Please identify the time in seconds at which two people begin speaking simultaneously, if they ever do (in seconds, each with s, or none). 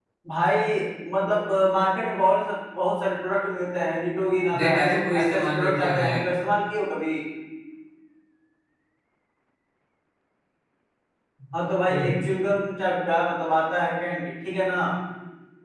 4.5 s